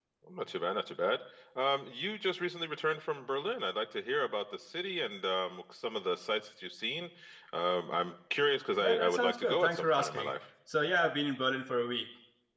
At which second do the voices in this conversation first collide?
8.8 s

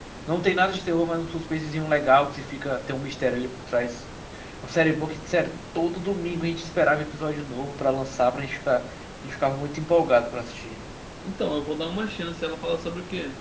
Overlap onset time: none

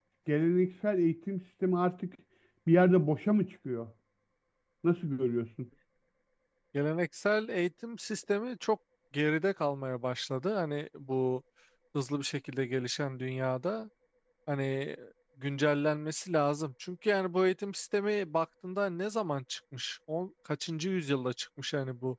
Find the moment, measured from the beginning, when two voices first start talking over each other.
none

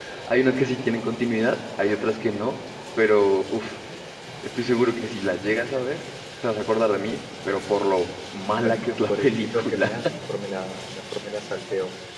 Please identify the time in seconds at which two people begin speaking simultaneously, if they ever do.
8.6 s

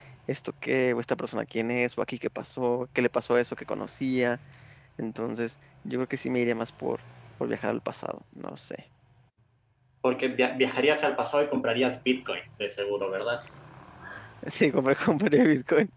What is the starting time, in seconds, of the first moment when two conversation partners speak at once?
none

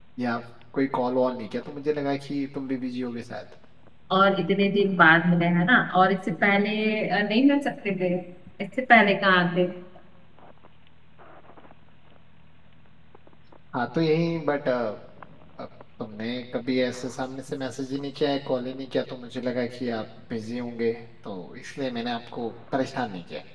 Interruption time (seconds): none

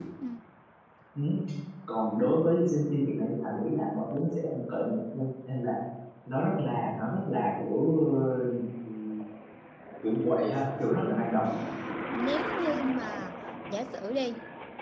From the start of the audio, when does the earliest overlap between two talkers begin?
none

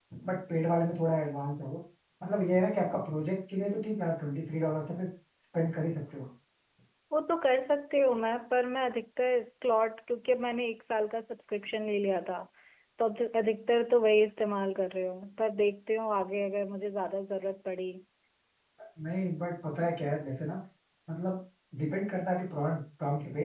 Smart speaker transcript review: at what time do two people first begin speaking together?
none

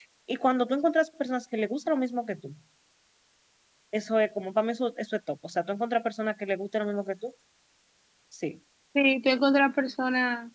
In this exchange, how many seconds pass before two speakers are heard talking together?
none

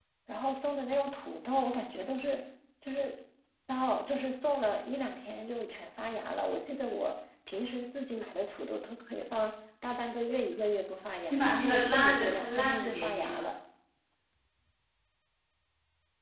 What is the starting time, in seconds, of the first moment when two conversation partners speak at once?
11.3 s

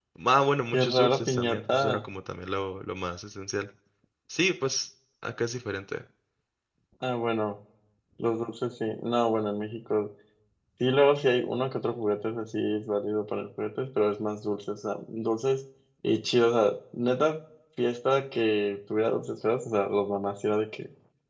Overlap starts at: 0.7 s

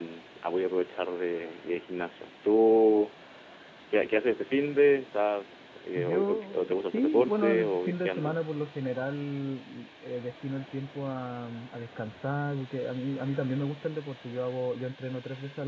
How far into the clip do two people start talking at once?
6.0 s

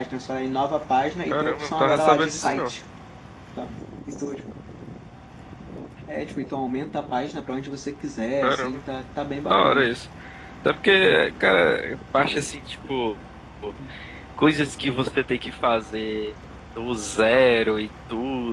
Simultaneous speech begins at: 1.3 s

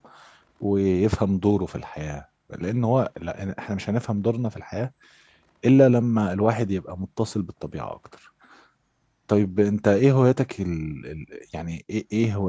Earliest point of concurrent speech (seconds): none

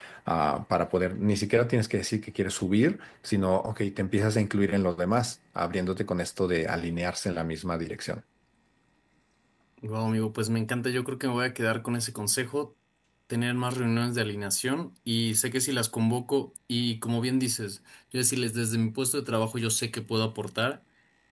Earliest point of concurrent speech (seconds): none

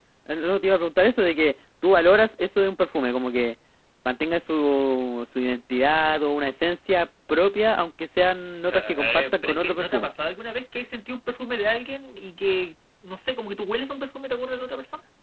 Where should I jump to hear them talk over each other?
8.7 s

